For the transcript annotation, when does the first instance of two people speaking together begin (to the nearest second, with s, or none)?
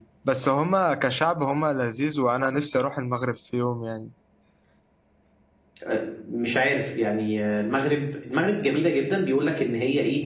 none